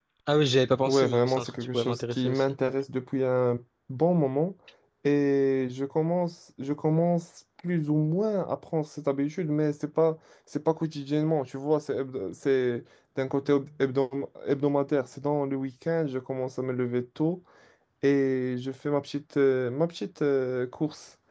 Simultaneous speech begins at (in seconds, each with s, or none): 0.8 s